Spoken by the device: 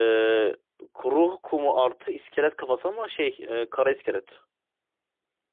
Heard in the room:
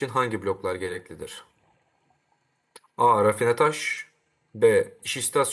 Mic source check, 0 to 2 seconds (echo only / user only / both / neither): user only